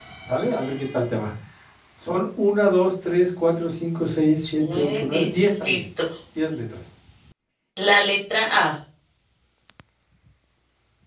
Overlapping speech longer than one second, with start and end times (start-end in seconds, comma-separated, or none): 4.4-5.8